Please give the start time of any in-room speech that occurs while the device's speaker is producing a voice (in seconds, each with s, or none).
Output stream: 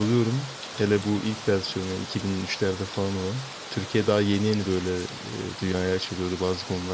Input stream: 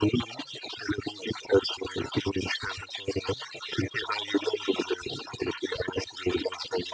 none